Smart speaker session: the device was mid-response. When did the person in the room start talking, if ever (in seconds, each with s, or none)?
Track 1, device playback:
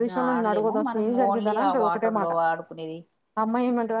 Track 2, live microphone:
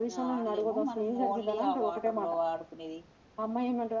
none